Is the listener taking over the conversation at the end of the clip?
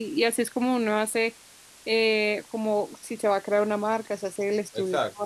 No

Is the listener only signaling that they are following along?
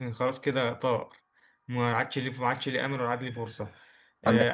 Yes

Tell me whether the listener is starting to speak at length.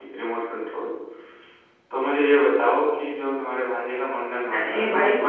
Yes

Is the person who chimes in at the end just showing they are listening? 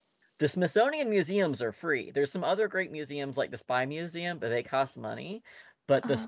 Yes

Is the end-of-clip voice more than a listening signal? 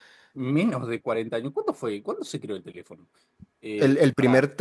Yes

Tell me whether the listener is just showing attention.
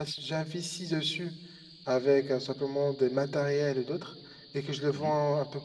Yes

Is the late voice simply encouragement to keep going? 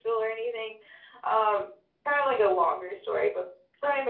Yes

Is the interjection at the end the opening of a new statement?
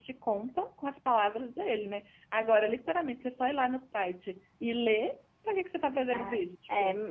Yes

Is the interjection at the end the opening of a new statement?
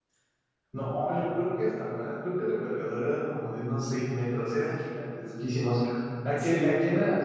No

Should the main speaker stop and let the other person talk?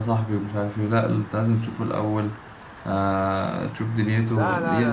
Yes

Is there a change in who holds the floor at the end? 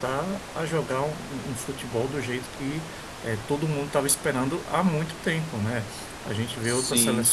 No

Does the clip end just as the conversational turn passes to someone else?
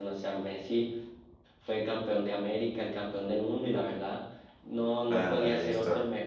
Yes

